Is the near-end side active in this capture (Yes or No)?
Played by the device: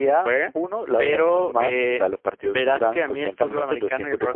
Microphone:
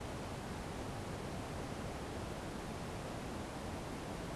No